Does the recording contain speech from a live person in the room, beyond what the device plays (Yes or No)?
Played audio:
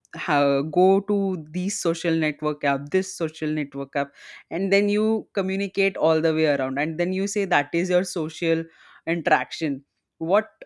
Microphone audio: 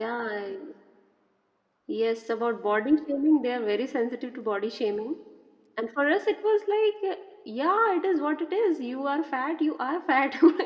Yes